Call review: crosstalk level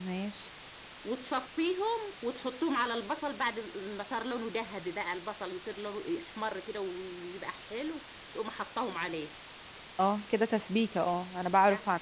none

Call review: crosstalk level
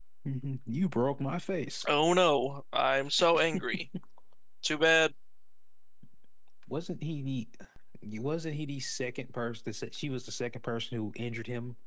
none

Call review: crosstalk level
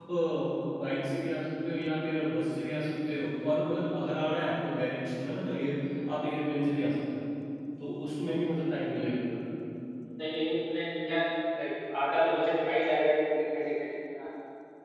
none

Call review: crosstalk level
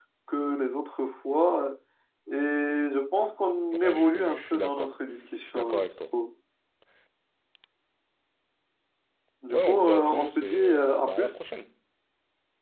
present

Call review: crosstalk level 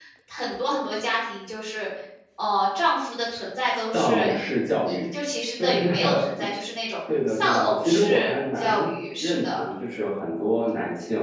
present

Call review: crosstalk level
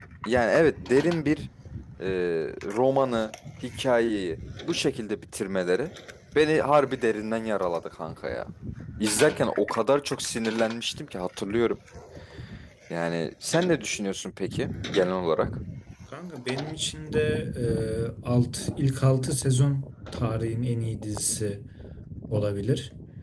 none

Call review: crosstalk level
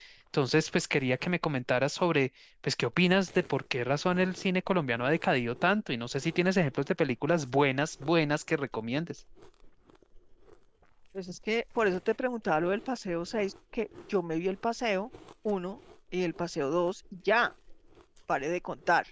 none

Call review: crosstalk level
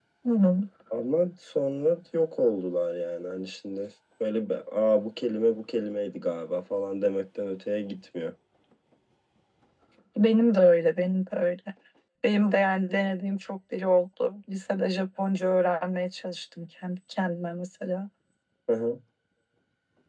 none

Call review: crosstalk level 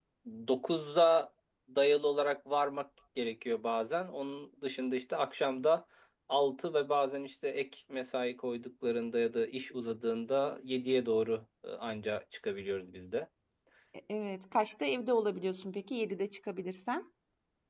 none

